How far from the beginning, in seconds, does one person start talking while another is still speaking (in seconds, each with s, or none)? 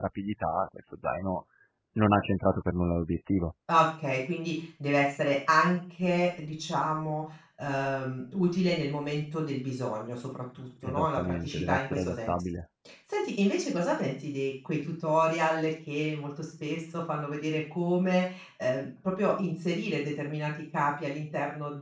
10.8 s